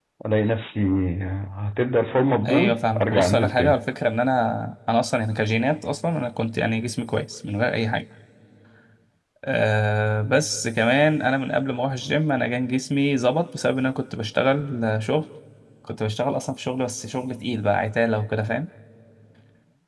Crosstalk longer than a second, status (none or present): present